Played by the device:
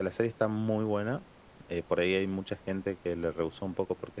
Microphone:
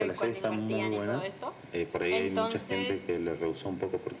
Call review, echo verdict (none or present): present